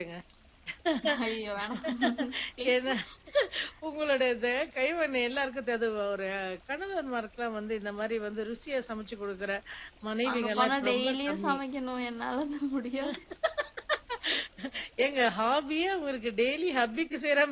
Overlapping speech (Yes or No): Yes